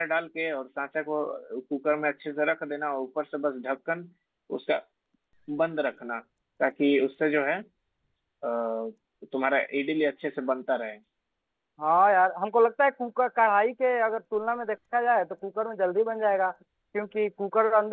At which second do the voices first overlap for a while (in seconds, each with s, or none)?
none